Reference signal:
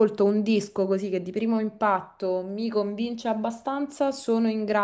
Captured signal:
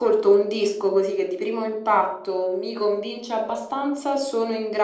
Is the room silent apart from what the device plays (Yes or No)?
Yes